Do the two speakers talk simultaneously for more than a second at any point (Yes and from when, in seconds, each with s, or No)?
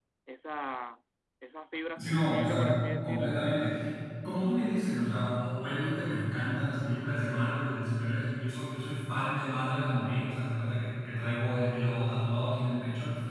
Yes, from 2.0 s